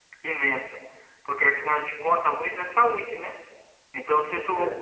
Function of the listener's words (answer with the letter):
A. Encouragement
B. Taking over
A